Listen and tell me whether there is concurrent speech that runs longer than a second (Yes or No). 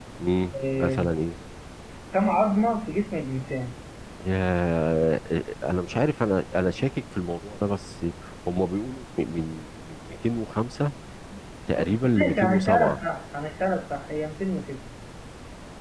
Yes